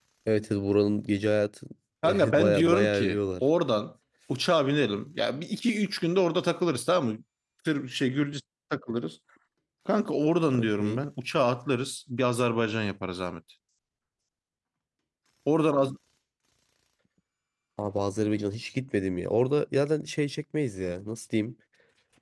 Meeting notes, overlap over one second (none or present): present